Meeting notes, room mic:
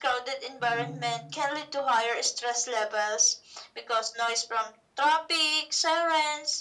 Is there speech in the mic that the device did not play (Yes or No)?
Yes